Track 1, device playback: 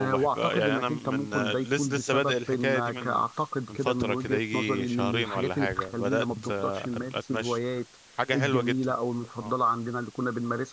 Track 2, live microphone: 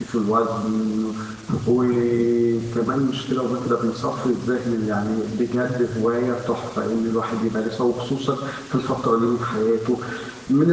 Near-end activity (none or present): present